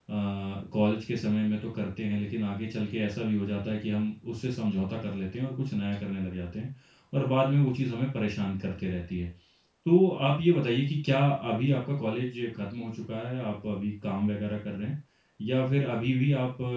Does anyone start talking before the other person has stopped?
No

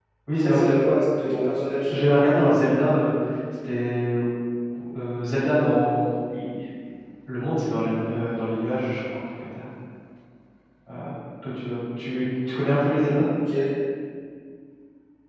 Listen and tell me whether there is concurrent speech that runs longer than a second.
No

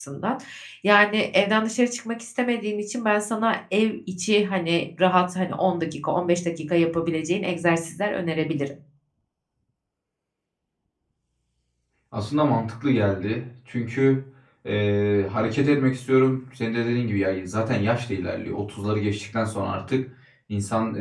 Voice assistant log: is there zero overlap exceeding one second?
Yes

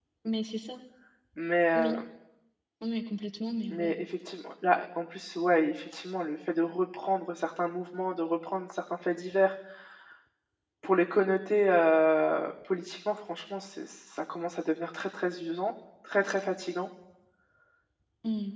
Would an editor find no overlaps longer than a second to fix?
Yes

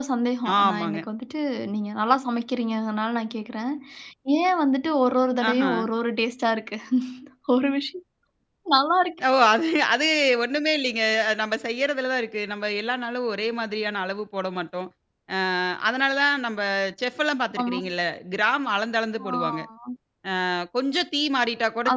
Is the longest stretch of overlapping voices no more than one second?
Yes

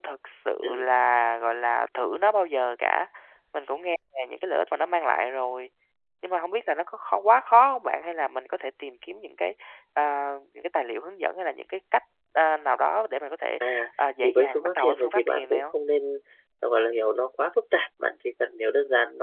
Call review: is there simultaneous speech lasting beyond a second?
Yes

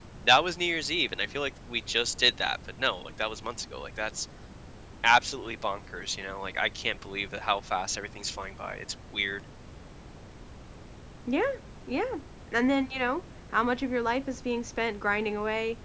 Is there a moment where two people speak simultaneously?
No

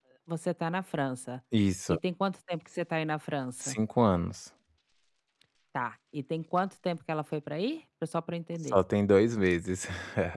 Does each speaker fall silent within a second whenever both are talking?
Yes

